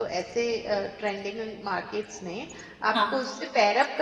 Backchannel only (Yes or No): Yes